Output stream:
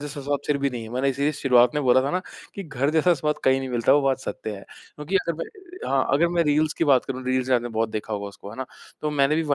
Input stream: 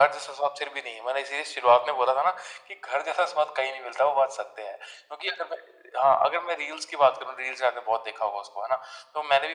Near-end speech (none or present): none